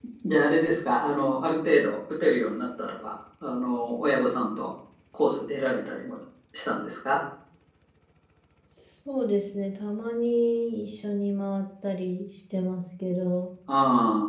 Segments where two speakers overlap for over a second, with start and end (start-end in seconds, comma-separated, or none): none